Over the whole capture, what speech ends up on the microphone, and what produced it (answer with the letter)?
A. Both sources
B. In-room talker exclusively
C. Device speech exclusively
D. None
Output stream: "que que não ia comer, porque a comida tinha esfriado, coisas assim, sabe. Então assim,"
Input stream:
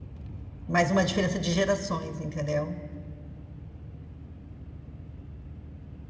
B